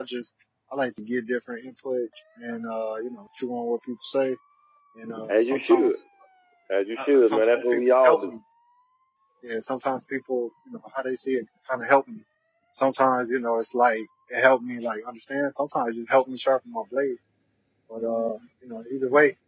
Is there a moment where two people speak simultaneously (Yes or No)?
Yes